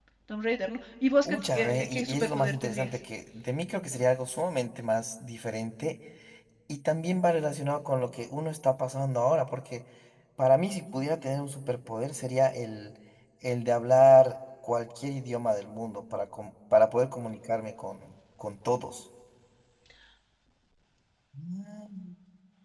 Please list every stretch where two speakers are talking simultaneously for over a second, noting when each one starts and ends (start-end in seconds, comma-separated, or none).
1.2-3.0